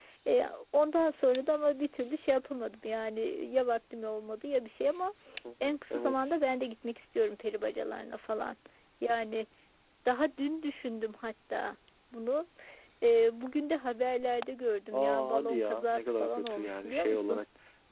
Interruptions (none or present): present